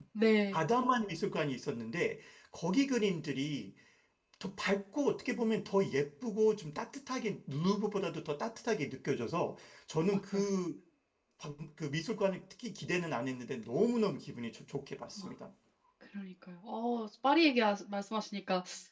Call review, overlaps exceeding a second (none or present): none